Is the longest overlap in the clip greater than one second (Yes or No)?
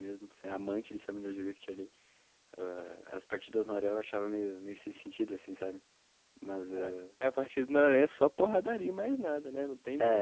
No